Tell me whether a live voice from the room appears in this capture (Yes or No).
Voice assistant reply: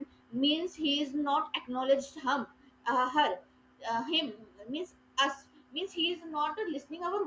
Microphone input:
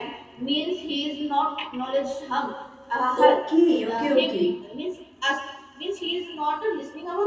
Yes